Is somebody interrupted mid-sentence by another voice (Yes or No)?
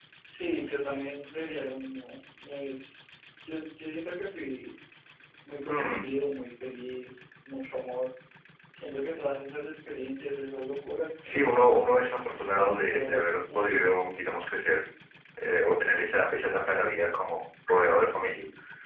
Yes